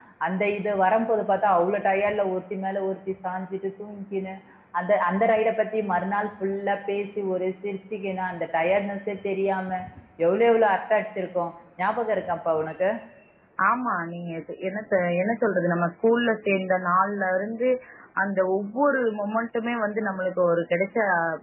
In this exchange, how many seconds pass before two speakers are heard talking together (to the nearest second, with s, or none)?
none